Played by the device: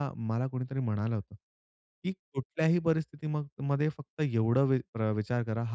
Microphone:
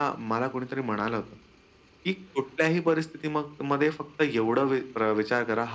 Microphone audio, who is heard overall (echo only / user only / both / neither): echo only